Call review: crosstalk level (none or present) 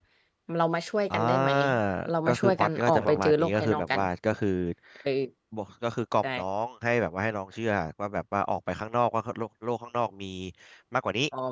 present